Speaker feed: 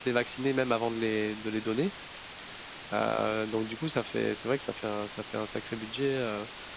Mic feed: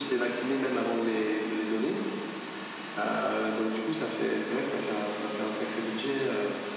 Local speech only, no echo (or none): none